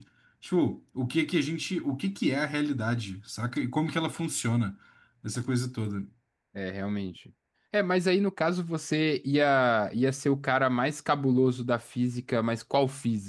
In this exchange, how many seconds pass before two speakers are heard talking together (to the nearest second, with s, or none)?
none